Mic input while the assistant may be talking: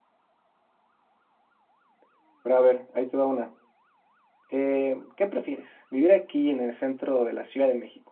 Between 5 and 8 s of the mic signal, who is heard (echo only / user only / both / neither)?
user only